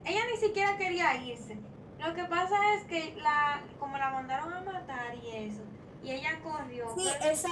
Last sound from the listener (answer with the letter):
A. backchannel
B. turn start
B